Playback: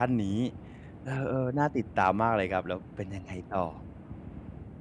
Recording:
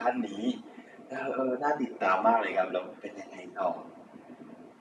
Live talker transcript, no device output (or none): none